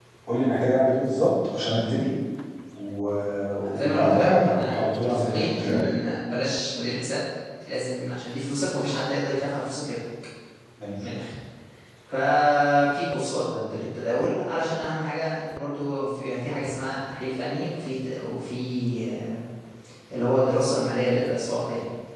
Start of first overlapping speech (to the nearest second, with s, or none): 4 s